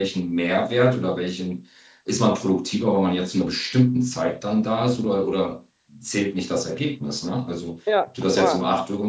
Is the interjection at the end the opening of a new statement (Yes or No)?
No